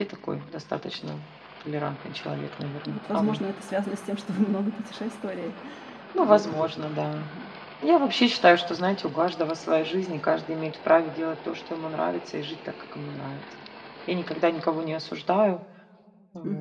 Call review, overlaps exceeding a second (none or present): none